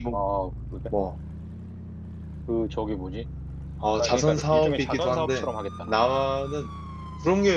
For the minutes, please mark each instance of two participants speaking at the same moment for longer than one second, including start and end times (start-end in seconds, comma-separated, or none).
4.0-5.5